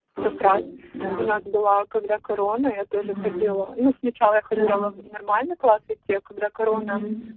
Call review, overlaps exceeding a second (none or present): none